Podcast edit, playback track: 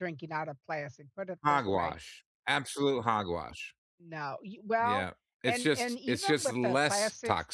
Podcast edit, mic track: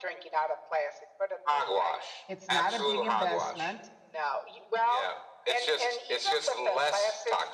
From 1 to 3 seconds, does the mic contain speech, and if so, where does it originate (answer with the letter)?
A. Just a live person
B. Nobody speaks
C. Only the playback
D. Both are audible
D